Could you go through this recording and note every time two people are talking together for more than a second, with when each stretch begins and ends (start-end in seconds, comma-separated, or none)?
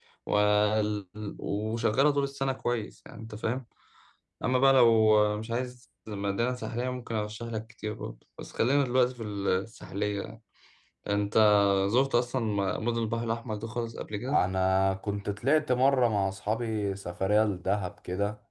none